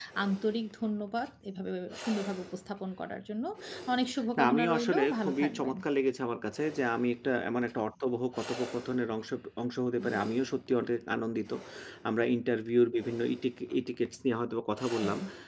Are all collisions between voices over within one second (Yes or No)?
No